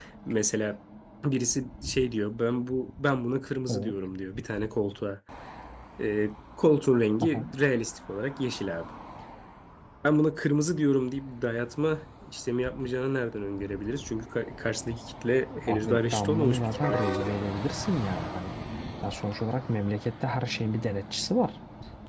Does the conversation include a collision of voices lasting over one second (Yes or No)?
Yes